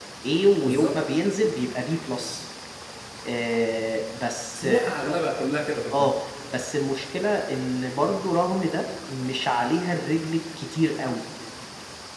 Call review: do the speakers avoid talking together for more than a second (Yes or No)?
Yes